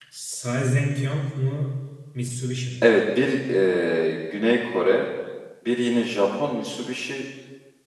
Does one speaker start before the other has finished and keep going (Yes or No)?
No